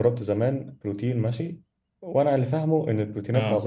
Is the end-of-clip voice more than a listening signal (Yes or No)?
No